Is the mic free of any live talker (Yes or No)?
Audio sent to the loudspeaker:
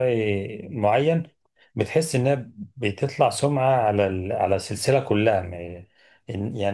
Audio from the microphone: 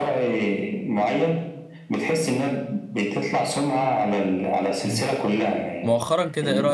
No